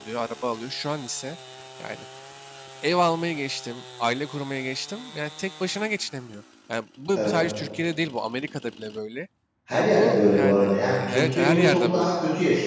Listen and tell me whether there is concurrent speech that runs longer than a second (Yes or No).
Yes